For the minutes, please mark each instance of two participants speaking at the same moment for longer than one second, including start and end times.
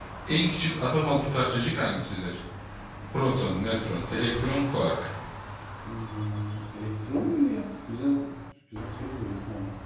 none

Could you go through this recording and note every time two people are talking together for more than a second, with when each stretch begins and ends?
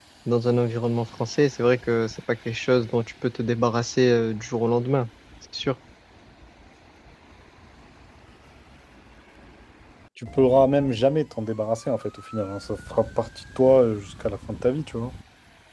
none

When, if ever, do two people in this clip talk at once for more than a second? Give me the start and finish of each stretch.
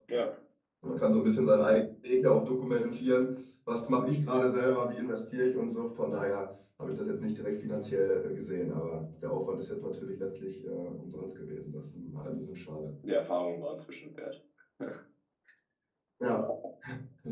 none

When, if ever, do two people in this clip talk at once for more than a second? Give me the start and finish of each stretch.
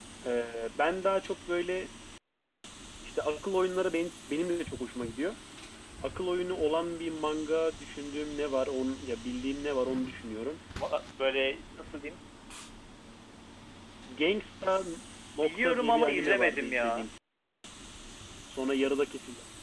15.4-17.0

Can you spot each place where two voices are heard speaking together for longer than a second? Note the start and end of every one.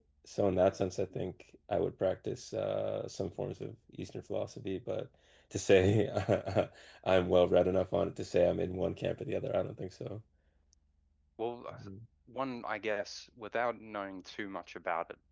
none

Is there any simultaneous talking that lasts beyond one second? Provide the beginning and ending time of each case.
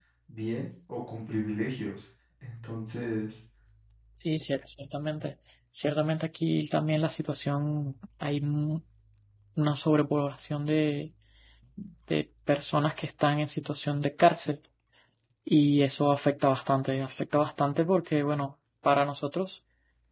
none

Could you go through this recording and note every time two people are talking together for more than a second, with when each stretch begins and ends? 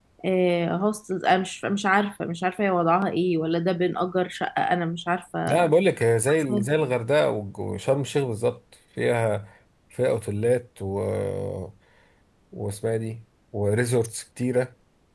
none

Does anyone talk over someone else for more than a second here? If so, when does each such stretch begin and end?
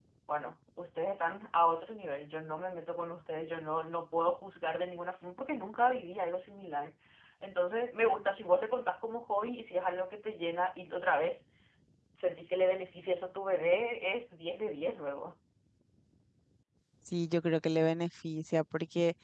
none

